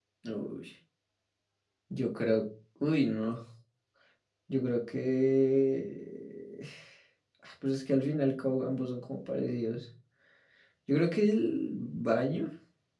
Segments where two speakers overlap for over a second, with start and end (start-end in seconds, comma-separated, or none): none